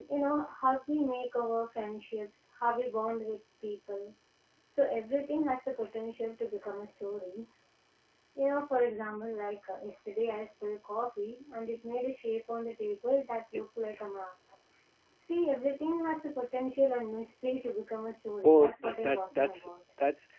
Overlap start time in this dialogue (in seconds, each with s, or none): 18.4 s